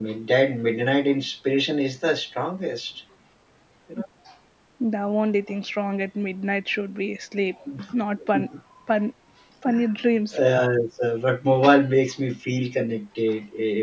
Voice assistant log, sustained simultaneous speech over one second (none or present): none